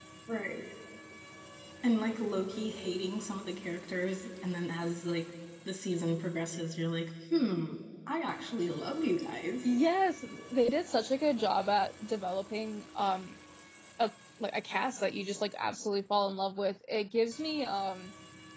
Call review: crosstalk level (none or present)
none